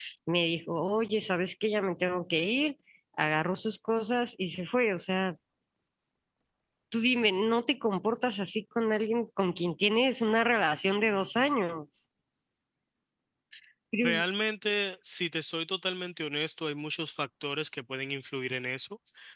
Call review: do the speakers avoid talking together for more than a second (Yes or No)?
Yes